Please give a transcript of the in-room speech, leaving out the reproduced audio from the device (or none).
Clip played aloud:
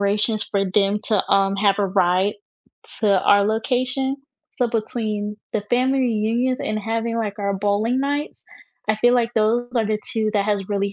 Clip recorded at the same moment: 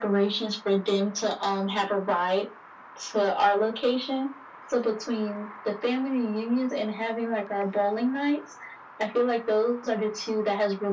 none